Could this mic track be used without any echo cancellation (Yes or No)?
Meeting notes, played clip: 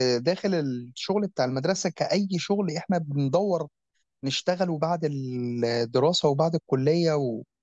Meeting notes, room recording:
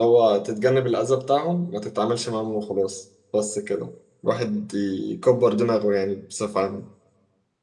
Yes